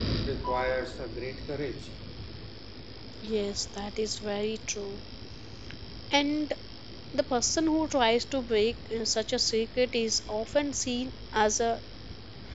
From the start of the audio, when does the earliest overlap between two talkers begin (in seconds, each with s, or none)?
none